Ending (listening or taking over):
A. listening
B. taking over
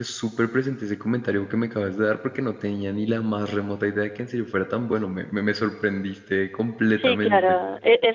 B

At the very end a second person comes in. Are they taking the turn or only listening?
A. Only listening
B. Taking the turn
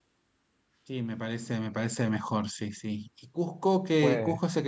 A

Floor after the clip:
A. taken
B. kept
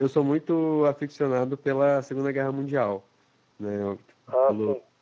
B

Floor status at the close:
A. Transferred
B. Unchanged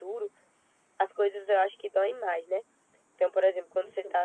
B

